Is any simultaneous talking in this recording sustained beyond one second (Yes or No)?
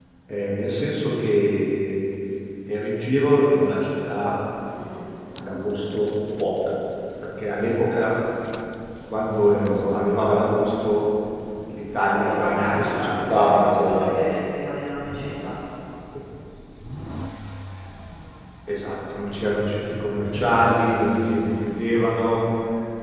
Yes